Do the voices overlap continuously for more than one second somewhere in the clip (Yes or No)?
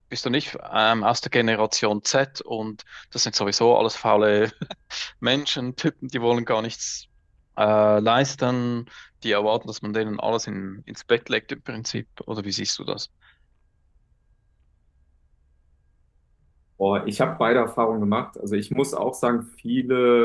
No